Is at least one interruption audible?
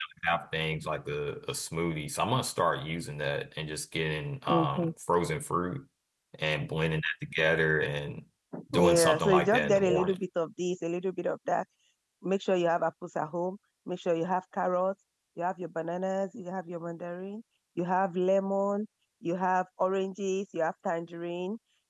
Yes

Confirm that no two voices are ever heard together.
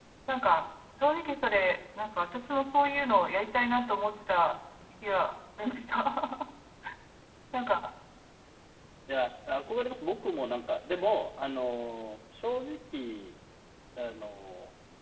Yes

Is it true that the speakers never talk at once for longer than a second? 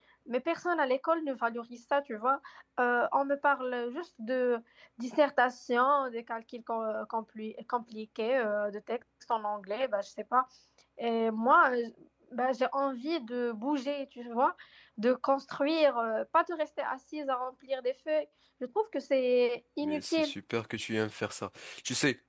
Yes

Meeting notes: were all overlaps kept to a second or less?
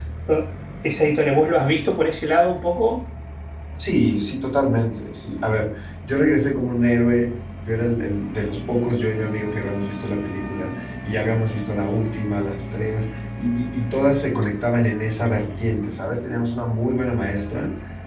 Yes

